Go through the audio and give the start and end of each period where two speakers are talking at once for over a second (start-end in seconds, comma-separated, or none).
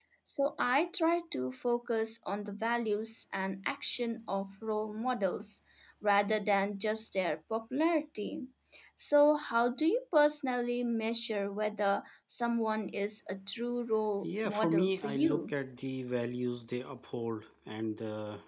14.2-15.5